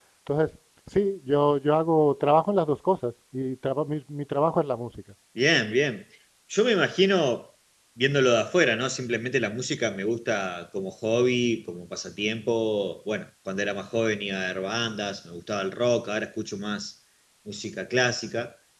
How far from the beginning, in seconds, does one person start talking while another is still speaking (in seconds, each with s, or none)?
none